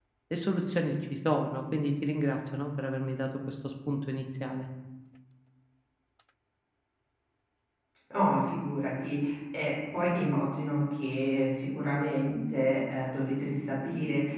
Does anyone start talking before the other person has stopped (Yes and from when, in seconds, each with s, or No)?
No